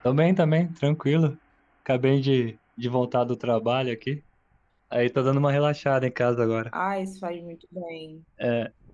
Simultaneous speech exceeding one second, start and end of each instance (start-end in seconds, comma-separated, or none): none